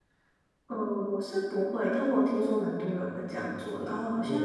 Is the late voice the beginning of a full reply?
No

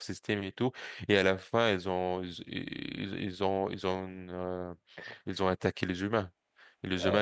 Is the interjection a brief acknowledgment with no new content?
Yes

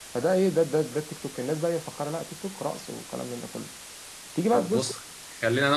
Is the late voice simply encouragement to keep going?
No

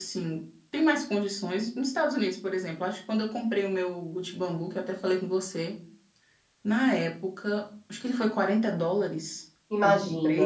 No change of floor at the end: Yes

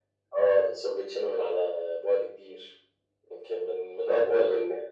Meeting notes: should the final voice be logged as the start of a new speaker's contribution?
Yes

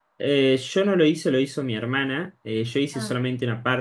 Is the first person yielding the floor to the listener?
No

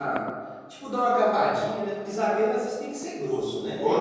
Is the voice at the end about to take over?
Yes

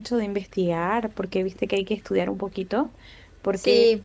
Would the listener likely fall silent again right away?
No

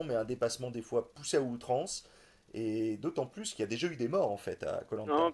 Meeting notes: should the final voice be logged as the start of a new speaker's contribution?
Yes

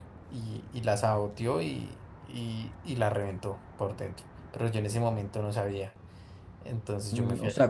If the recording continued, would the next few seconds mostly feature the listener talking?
Yes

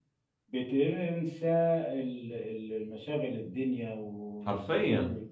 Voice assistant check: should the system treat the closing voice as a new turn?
No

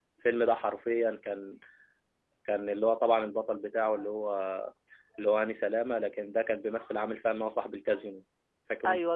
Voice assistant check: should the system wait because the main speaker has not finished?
No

